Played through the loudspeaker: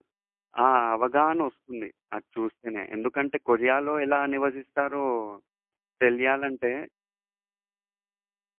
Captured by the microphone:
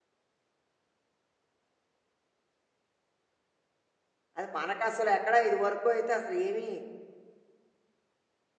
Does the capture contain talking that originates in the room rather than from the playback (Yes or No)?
Yes